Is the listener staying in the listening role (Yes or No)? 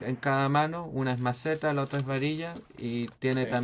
Yes